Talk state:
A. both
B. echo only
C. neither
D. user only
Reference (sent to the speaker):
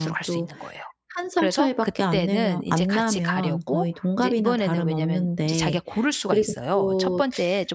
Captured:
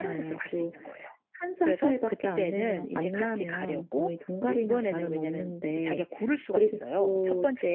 B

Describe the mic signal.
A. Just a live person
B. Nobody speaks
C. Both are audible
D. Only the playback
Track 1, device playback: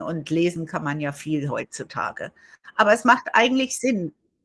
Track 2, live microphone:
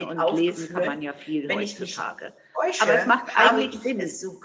C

